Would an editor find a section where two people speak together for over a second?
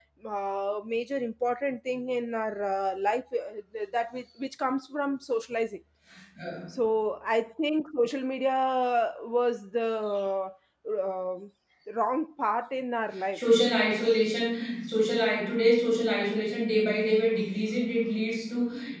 No

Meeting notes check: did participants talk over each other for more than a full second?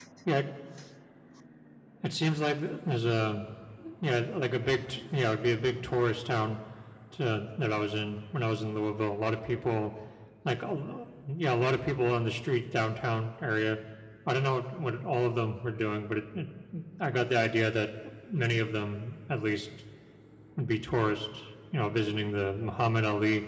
No

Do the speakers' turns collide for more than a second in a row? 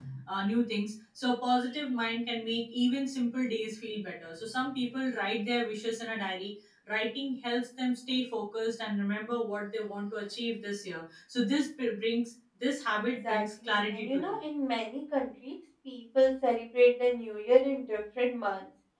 Yes, from 13.0 s

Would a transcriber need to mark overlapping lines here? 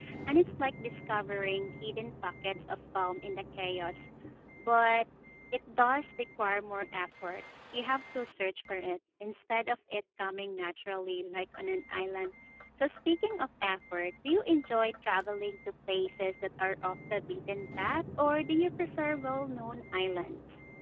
No

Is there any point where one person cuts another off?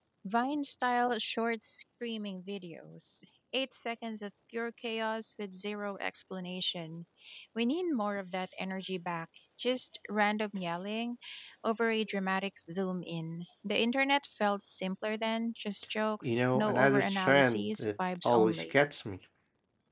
Yes, from 16.2 s

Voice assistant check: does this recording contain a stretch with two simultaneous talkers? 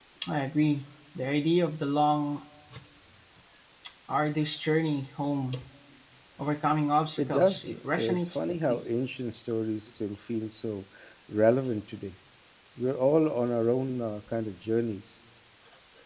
Yes, from 7.2 s

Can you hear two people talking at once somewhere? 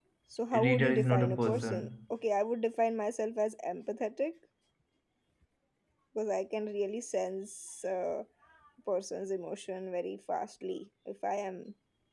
Yes, from 0.5 s

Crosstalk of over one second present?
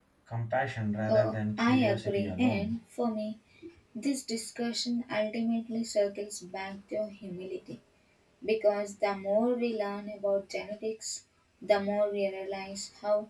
Yes, from 1.1 s

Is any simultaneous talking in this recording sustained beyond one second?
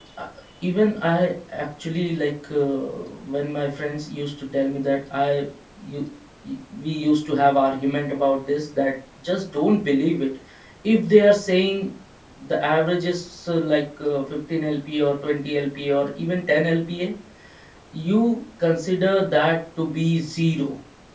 No

